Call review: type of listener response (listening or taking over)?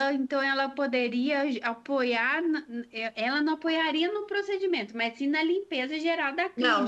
taking over